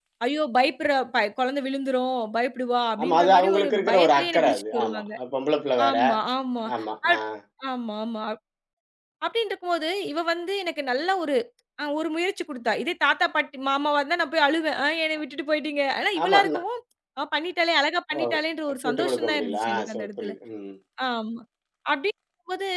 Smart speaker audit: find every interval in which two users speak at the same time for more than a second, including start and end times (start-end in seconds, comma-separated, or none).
3.0-5.0, 18.9-20.3